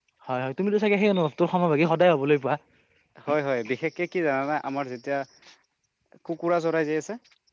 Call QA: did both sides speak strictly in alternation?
Yes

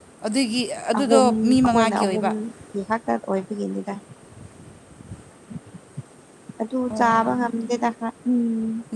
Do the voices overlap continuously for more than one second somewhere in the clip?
Yes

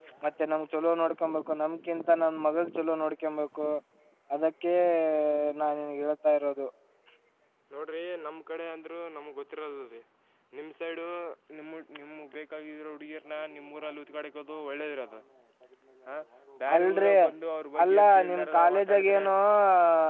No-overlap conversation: No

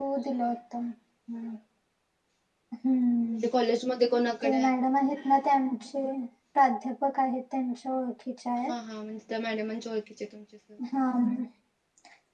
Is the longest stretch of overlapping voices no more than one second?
Yes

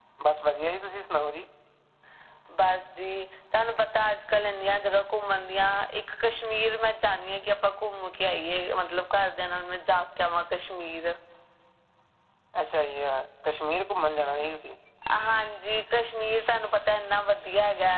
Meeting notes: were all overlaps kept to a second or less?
Yes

